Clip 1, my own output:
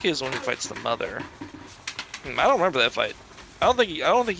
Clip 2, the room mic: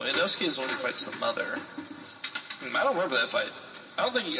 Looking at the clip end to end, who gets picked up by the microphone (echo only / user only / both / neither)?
echo only